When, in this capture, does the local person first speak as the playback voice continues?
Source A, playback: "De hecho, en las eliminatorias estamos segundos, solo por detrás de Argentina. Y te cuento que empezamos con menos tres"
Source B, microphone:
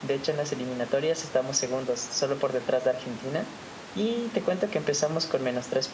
none

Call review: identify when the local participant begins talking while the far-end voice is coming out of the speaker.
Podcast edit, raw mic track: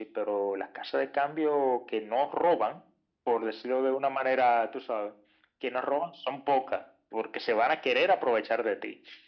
none

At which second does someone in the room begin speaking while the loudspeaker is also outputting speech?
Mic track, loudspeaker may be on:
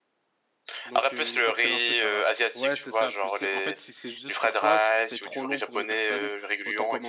0.8 s

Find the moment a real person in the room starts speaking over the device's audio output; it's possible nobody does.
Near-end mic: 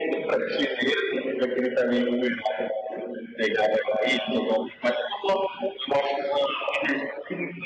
none

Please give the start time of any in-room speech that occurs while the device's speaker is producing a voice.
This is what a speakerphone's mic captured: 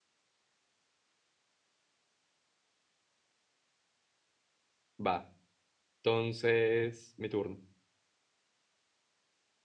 5.0 s

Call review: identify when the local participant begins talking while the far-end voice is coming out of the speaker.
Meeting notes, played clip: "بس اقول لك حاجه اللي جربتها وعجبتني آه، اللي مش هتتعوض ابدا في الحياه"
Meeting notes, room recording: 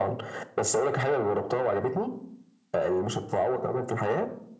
none

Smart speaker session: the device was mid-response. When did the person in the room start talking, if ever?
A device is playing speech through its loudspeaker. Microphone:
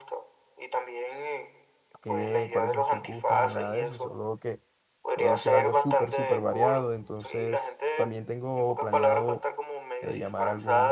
2.0 s

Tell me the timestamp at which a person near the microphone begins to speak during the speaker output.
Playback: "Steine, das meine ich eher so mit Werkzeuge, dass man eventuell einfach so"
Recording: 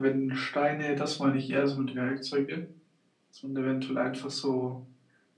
none

